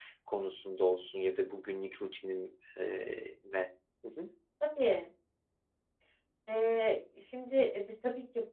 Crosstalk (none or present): none